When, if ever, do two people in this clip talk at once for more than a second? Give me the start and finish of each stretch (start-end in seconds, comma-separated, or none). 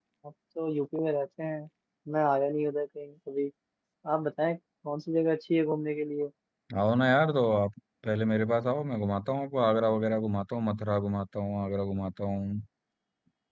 none